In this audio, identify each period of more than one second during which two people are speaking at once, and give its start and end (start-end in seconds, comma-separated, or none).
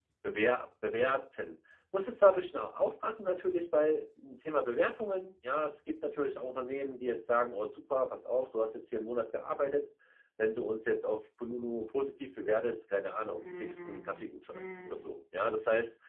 13.3-15.0